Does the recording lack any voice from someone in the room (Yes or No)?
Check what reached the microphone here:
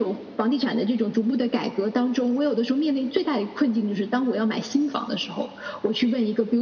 Yes